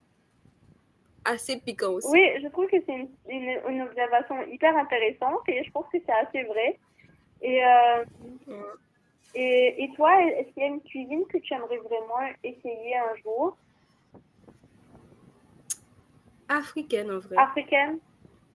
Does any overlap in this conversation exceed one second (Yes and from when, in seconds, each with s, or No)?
No